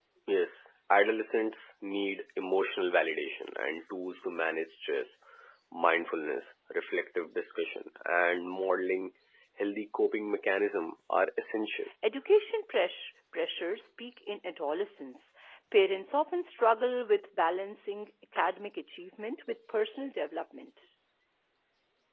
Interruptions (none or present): none